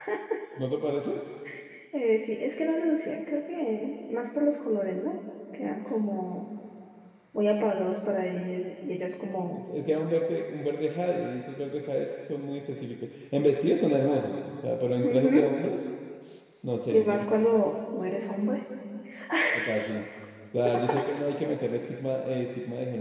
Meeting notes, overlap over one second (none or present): none